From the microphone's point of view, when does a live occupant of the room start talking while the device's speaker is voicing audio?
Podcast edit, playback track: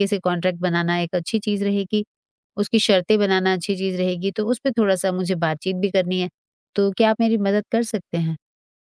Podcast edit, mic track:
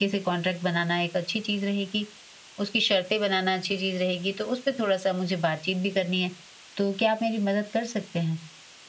none

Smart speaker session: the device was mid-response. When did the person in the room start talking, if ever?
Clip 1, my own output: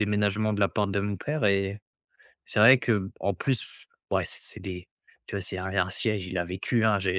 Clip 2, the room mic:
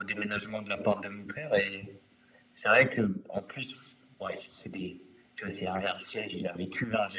none

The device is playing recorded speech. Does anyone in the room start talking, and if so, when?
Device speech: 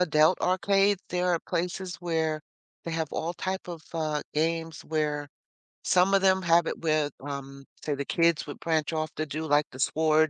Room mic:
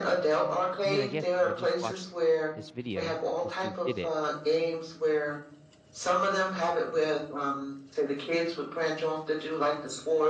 0.8 s

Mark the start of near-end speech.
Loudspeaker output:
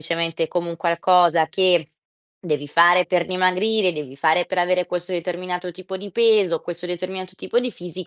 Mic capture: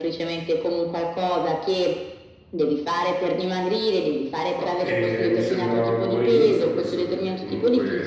4.5 s

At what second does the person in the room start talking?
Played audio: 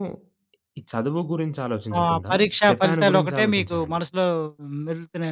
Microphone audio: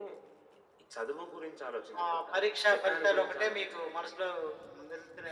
none

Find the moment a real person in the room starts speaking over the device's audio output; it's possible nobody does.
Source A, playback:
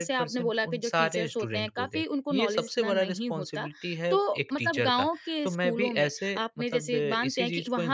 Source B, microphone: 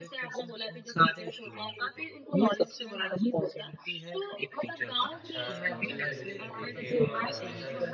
5.1 s

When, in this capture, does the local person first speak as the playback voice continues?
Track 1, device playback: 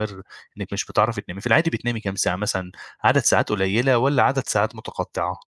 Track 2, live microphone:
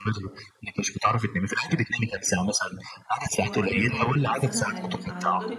3.4 s

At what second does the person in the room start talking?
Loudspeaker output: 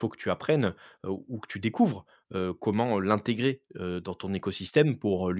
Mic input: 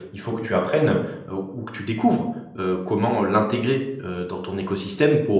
none

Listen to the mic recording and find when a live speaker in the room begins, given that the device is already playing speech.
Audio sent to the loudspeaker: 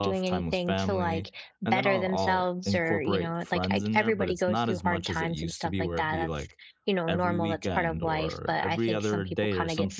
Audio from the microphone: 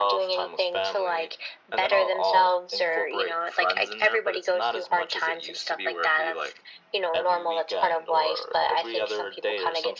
none

